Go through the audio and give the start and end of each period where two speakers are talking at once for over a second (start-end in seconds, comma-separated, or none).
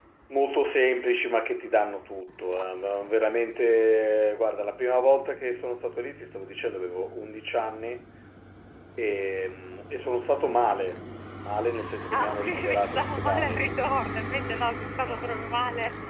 12.1-13.7